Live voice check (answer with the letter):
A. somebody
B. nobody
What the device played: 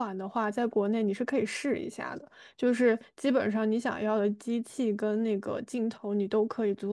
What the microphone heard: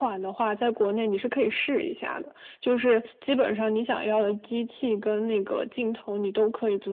B